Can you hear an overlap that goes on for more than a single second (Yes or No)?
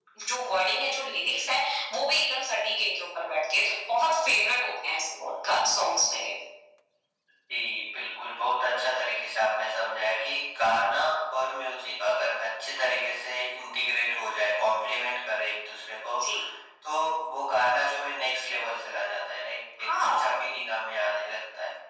No